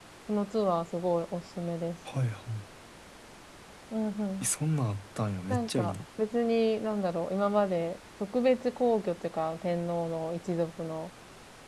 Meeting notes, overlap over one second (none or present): none